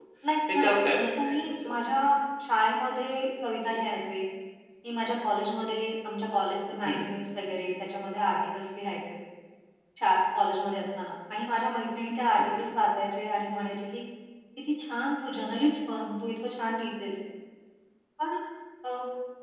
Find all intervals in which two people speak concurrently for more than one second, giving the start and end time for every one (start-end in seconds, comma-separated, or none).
0.5-1.8